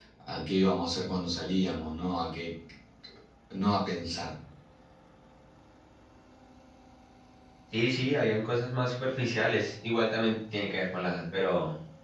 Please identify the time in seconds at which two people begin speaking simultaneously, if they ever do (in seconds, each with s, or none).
none